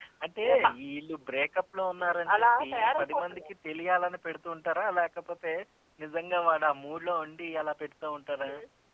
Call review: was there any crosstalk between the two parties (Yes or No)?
Yes